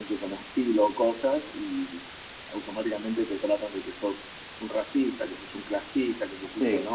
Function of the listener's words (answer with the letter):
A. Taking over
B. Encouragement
B